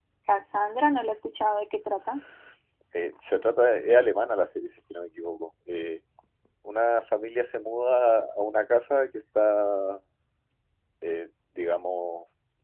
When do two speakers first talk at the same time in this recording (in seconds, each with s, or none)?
none